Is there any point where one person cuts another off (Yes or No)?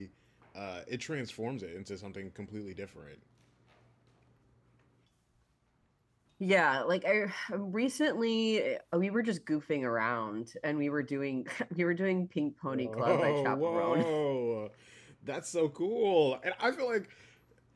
Yes